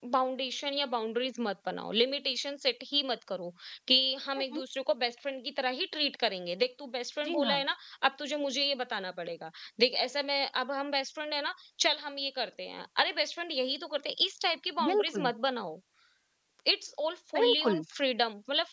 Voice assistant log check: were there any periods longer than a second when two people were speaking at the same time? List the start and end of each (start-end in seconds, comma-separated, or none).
none